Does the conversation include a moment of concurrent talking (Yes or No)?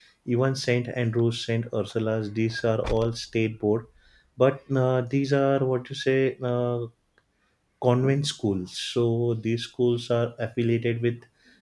No